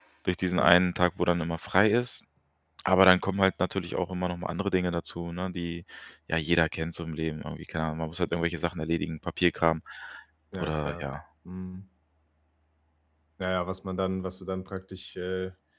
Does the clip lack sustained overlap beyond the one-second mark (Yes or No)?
Yes